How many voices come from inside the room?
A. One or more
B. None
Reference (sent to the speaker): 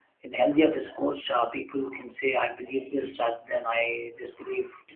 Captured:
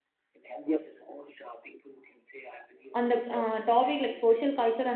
A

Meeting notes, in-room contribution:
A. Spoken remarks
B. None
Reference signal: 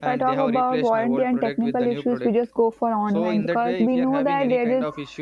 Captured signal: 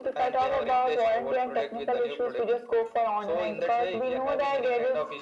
B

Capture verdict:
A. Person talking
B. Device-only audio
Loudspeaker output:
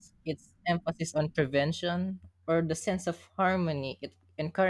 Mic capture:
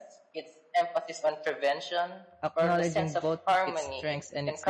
A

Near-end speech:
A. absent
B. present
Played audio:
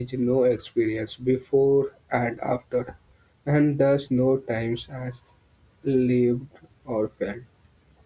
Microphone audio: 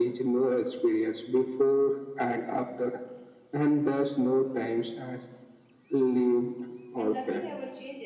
B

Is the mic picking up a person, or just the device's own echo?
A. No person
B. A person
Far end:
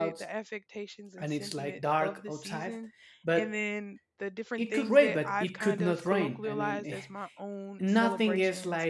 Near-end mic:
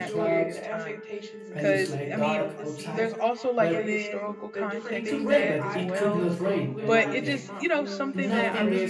B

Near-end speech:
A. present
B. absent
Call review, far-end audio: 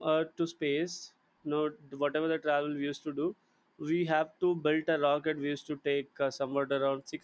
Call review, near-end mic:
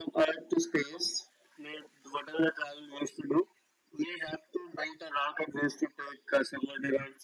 B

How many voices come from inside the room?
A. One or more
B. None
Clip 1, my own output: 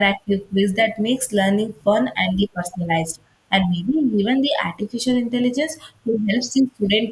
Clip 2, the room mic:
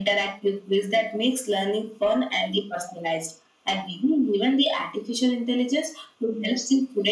B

